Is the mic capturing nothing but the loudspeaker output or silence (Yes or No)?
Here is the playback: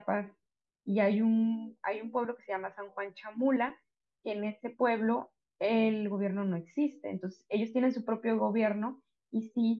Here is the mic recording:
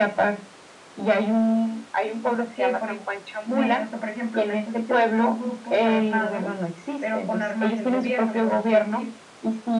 No